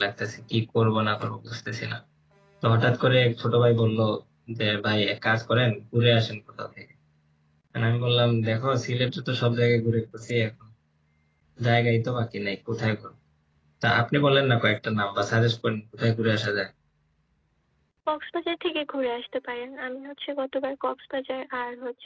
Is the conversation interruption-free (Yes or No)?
Yes